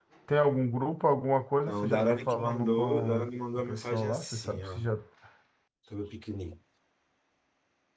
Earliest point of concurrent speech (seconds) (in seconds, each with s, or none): 1.7 s